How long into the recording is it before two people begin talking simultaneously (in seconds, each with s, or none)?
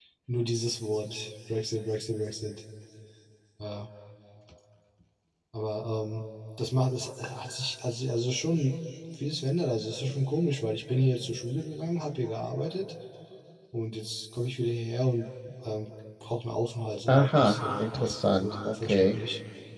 17.1 s